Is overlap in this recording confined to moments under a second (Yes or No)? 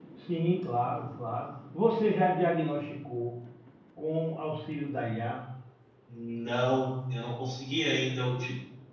Yes